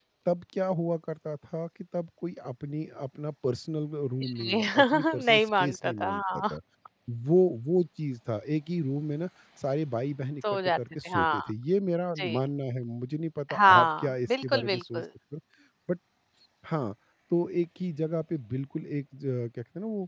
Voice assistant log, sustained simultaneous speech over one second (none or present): present